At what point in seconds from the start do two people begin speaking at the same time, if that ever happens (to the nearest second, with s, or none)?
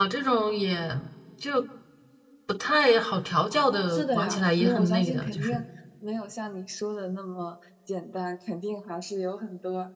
4 s